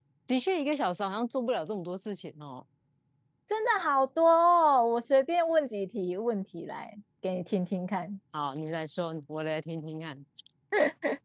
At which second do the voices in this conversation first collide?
none

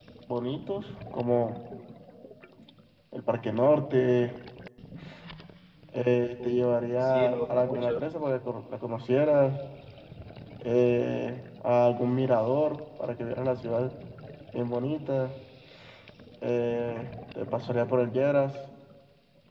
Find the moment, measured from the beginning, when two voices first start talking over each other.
6 s

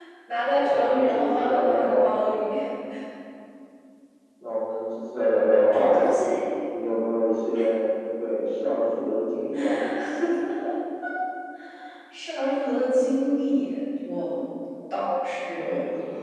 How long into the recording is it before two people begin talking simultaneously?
1 s

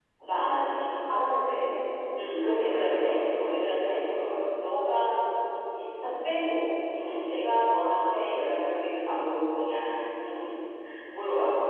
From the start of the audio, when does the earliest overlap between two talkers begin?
2 s

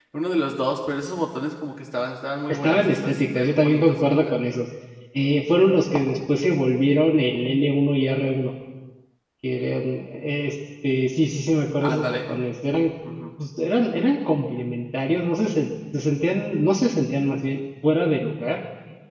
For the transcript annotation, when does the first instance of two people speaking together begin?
2 s

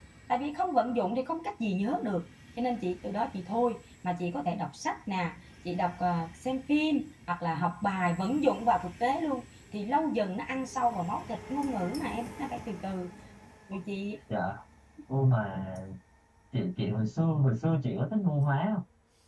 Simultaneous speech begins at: none

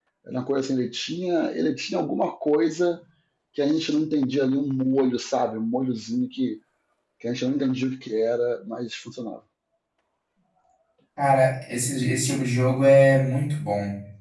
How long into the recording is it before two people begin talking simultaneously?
none

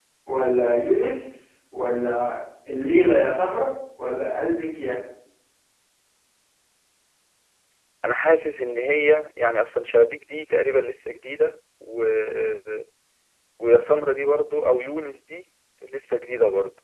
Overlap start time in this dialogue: none

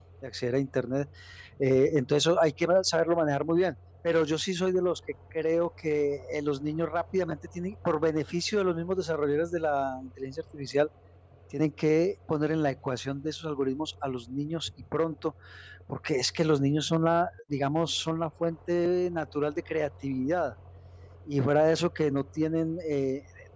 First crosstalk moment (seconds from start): none

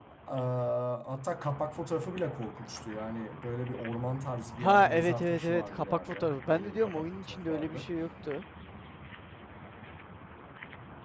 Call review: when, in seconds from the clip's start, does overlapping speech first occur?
5 s

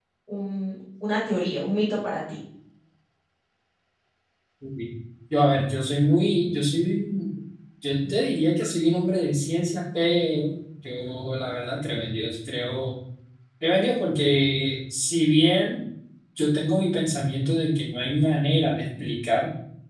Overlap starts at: none

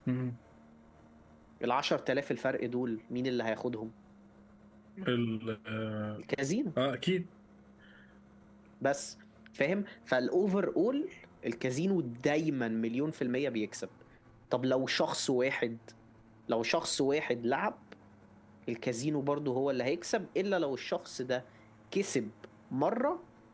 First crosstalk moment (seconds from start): none

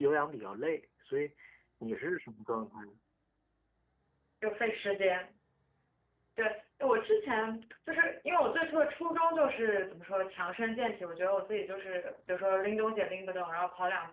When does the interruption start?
none

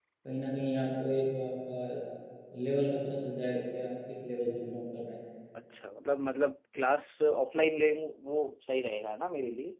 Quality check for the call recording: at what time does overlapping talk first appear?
none

